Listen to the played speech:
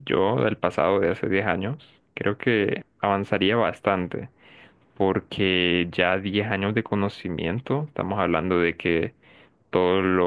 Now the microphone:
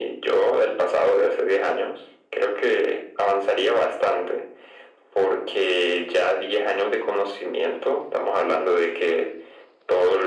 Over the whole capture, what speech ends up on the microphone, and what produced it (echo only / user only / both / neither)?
echo only